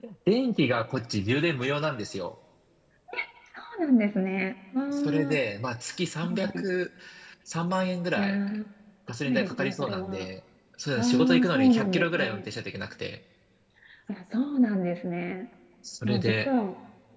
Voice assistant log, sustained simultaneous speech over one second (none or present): present